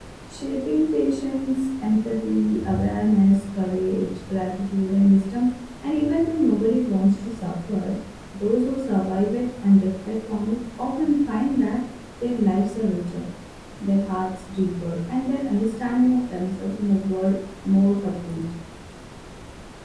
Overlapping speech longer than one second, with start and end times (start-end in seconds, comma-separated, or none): none